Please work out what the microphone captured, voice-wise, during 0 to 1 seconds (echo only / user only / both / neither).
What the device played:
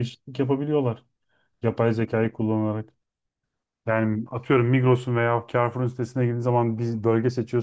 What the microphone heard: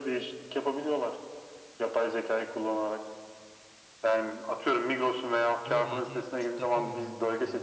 echo only